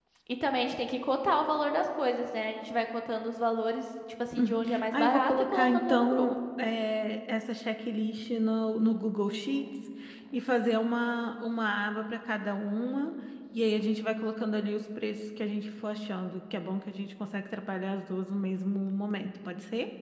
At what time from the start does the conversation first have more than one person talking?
4.4 s

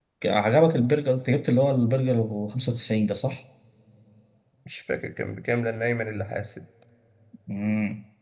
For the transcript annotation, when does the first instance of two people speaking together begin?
none

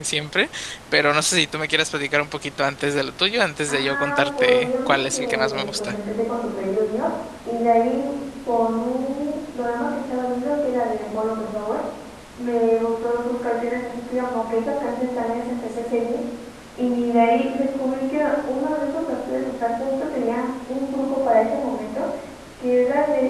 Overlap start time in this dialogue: 3.7 s

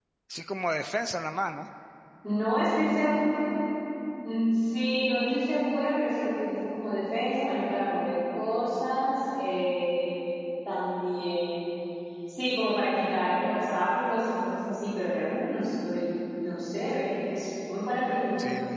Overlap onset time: none

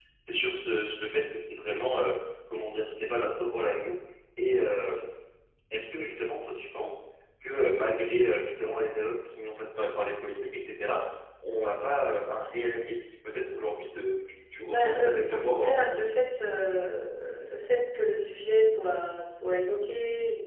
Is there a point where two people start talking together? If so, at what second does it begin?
14.7 s

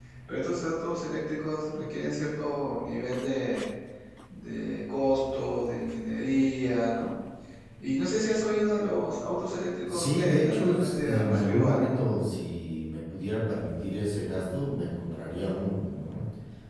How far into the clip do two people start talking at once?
9.9 s

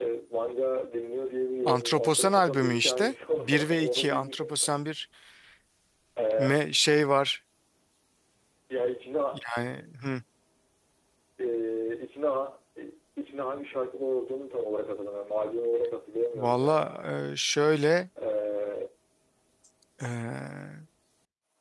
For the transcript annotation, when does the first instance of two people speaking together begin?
1.7 s

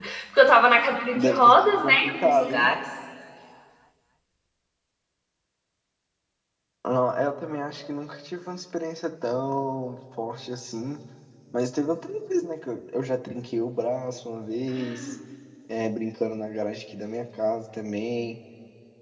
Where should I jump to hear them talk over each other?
1.1 s

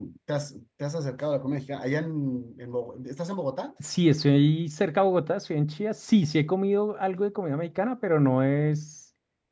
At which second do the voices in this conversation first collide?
none

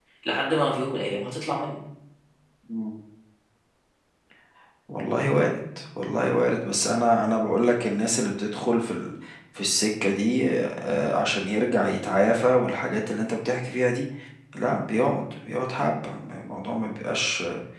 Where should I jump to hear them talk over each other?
none

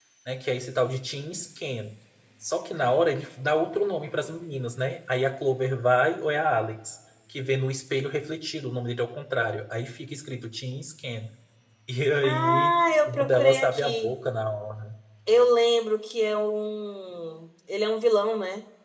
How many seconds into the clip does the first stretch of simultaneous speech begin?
12.2 s

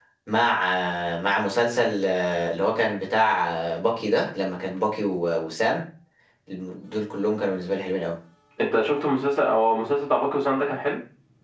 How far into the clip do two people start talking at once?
none

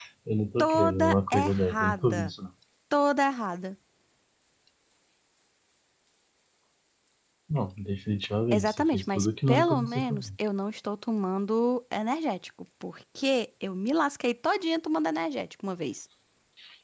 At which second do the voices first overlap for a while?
0.6 s

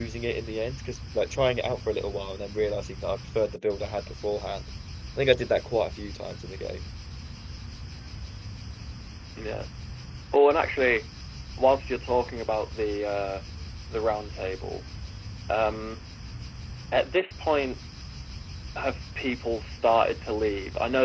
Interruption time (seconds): none

